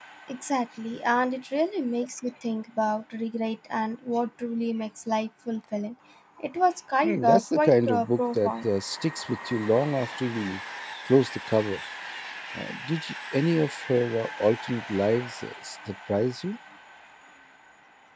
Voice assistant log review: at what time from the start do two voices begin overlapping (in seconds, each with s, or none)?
7.0 s